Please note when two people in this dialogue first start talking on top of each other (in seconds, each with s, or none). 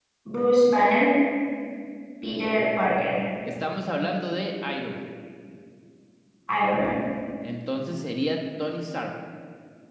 none